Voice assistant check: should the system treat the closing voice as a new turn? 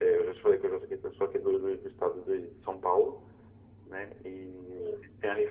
No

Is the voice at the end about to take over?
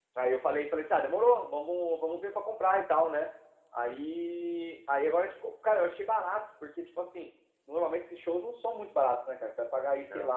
No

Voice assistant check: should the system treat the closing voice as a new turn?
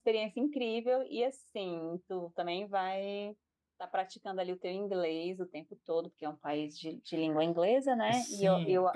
Yes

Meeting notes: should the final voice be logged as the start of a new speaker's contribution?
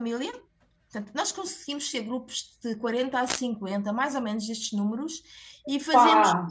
No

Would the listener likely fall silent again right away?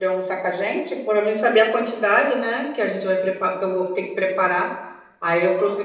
No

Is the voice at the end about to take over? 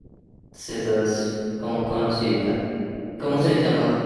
No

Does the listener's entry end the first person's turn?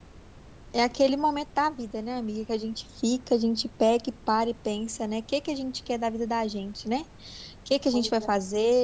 No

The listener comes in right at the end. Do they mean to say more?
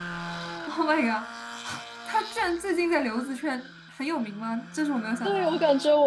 Yes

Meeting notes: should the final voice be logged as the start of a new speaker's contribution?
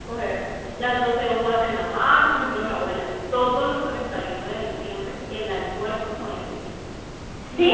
No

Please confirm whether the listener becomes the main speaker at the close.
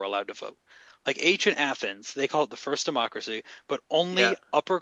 No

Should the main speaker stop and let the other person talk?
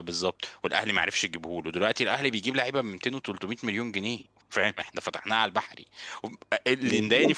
Yes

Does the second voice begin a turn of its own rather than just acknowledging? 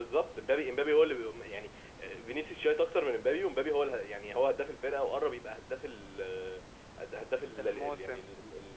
No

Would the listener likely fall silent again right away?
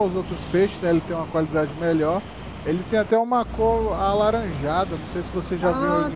No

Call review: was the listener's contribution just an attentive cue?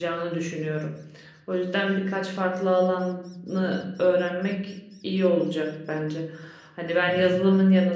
Yes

